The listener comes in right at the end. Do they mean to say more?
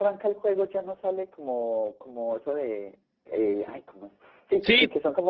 No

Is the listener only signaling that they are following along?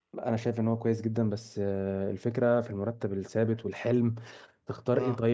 Yes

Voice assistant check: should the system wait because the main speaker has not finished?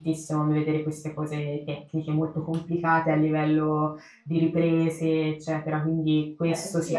No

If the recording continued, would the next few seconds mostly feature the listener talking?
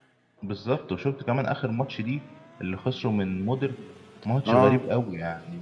No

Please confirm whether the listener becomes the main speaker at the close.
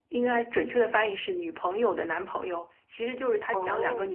No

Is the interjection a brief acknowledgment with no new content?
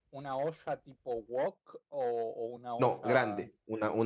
No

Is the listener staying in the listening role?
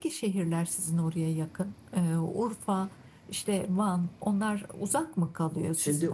No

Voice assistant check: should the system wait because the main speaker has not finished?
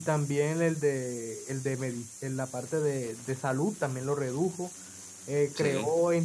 Yes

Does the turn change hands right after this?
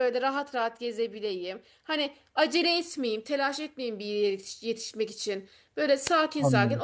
No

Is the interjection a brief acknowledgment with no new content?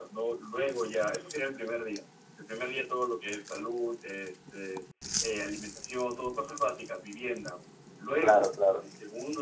Yes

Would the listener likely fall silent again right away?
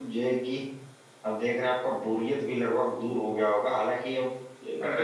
Yes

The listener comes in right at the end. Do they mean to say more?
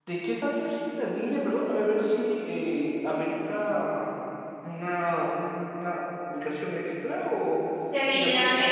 Yes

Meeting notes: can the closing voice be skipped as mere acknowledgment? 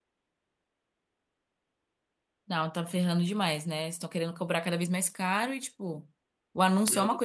Yes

